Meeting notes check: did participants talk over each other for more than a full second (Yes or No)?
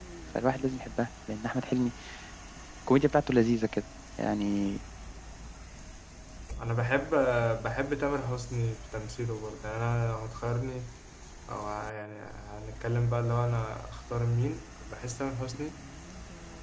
No